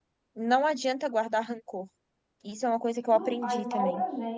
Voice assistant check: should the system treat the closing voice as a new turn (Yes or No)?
Yes